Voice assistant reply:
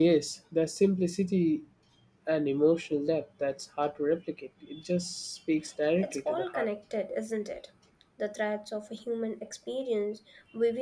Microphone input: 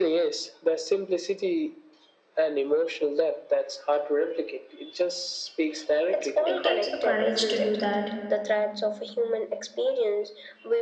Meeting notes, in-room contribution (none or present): present